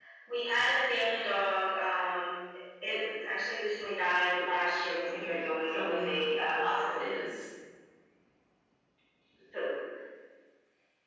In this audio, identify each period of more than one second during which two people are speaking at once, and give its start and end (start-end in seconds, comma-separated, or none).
5.1-7.1